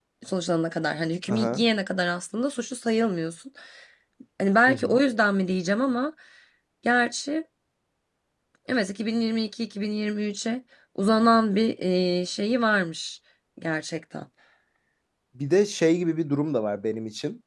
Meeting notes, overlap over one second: none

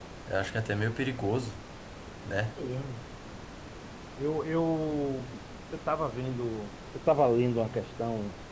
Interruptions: none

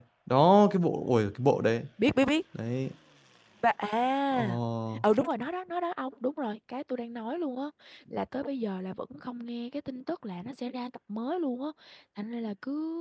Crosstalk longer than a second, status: none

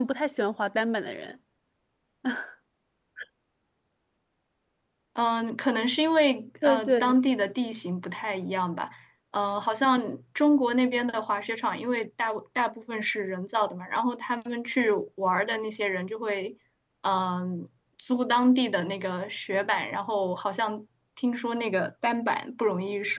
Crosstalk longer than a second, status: none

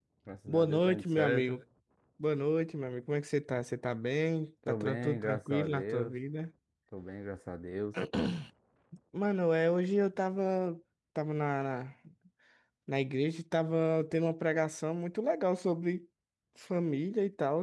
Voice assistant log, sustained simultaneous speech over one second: present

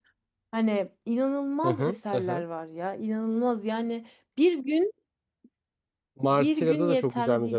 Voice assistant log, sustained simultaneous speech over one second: present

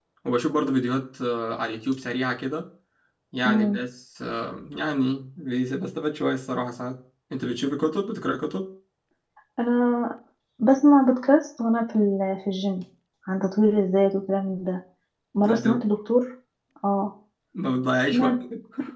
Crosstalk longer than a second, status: none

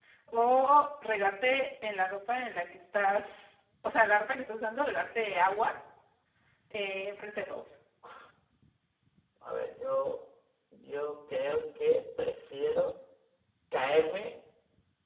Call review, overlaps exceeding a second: none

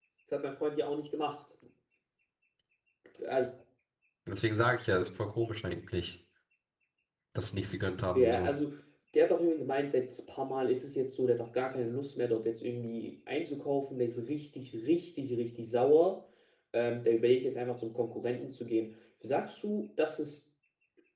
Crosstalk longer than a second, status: none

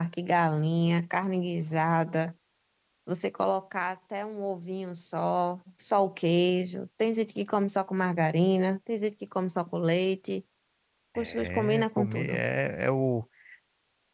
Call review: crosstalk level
present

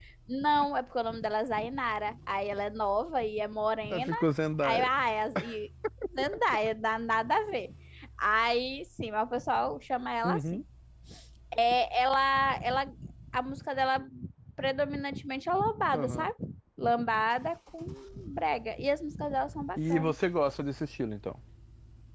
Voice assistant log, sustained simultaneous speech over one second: none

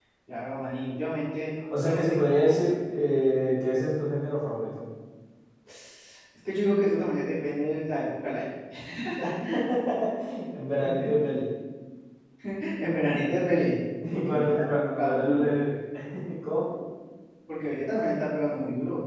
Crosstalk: present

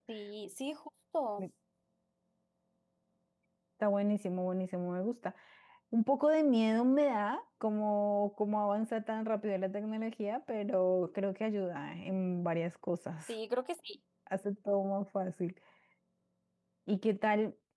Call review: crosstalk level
none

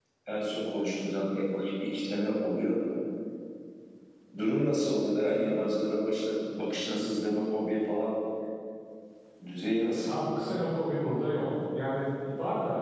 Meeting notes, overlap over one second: none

